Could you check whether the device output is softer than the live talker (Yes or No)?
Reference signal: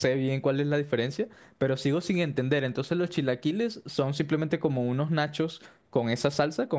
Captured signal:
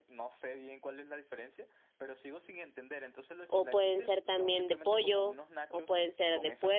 Yes